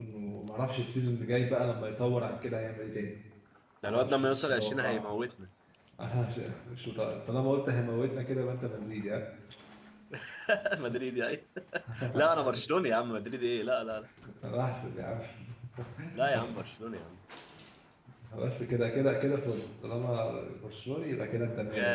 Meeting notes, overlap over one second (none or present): present